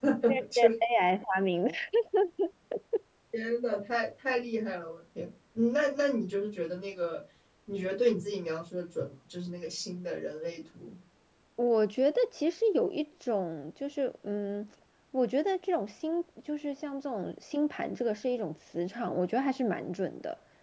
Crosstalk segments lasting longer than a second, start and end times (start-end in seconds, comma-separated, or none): none